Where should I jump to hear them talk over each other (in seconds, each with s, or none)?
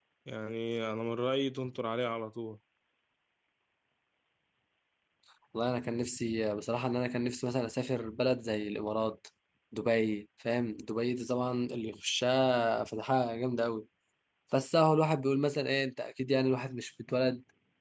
none